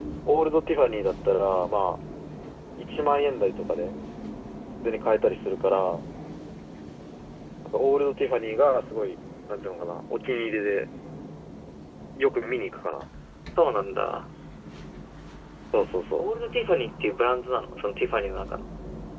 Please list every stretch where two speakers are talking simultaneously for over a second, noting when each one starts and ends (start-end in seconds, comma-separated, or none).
none